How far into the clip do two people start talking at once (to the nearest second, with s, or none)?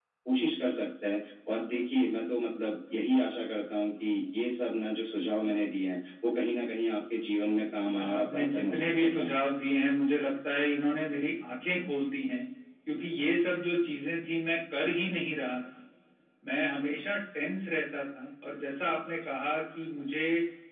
8 s